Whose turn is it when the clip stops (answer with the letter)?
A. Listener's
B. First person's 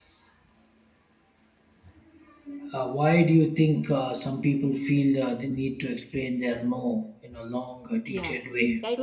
A